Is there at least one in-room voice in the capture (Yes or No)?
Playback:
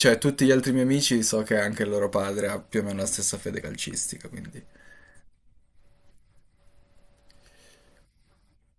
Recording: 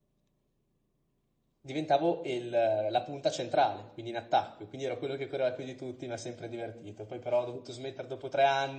Yes